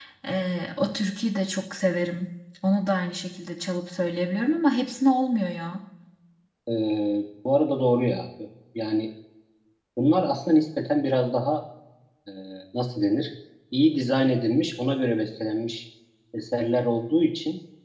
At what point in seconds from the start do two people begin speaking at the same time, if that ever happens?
none

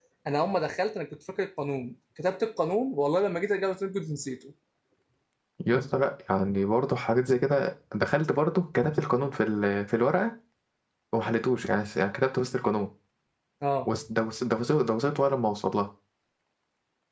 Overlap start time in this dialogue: none

